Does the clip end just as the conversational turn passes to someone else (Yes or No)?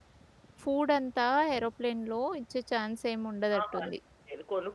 Yes